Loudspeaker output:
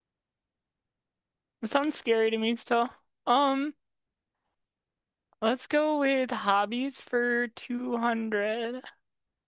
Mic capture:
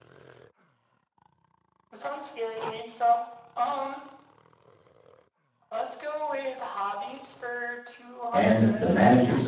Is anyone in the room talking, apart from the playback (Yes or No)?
Yes